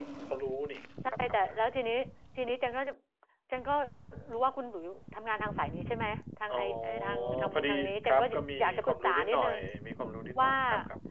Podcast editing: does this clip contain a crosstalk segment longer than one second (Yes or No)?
Yes